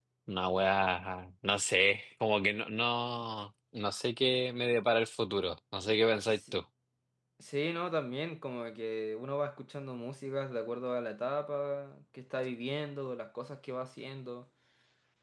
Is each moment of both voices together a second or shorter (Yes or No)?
Yes